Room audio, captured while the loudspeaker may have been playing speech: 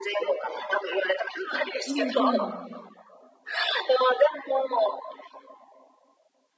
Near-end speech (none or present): present